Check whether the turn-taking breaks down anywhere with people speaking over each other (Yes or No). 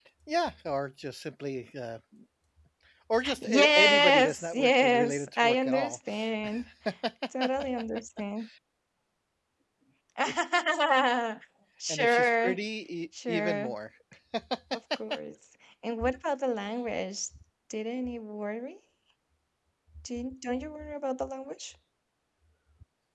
Yes